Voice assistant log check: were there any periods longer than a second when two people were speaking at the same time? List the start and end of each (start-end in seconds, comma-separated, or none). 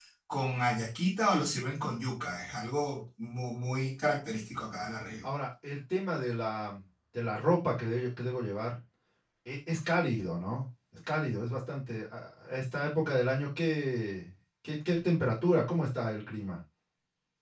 none